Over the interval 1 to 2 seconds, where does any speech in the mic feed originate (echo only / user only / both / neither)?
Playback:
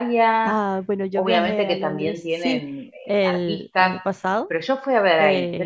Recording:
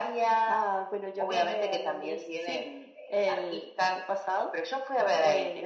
echo only